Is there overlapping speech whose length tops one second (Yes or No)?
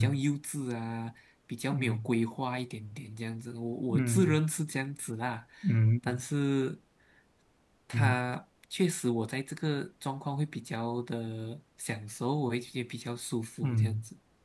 No